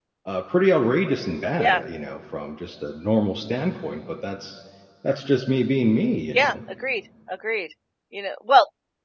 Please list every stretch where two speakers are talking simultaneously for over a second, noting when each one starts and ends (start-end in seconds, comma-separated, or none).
none